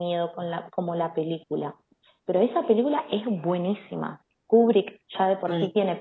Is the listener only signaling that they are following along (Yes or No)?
Yes